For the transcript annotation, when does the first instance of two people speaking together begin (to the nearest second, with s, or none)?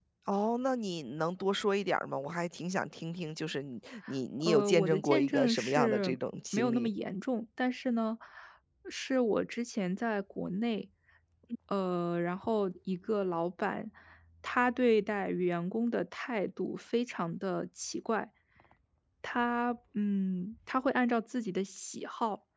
4 s